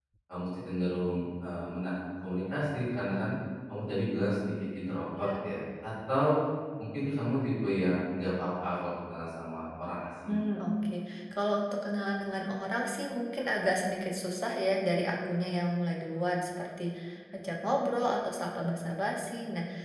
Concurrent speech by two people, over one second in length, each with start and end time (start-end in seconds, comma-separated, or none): none